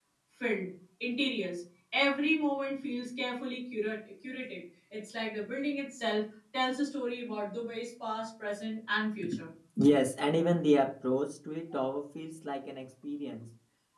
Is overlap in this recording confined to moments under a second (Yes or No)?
Yes